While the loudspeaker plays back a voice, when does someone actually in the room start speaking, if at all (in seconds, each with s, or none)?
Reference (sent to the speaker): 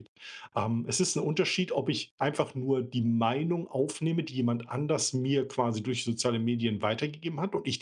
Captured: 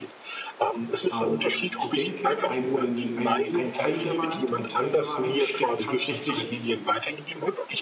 1.1 s